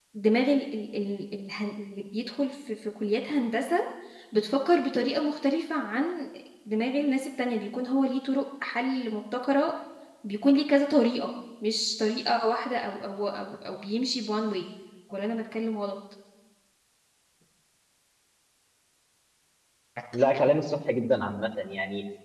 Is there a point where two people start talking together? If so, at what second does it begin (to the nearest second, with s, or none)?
none